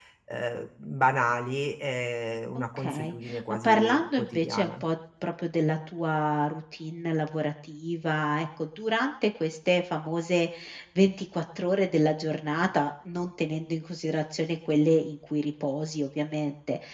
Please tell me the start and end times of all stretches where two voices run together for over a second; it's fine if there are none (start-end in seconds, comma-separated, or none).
2.8-4.8